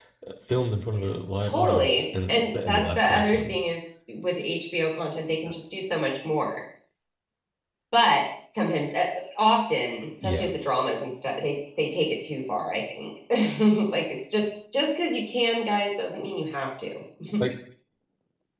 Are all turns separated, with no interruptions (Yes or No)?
No